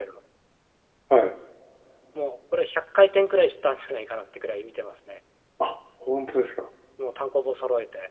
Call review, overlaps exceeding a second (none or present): none